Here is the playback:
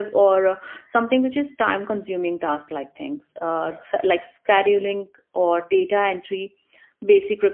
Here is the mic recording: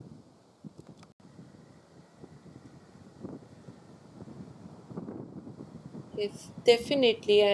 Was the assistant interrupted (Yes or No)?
Yes